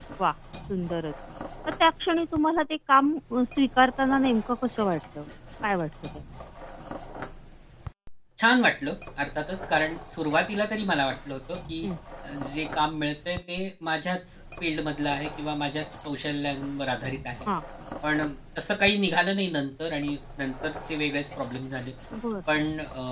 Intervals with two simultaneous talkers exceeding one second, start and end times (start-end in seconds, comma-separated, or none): none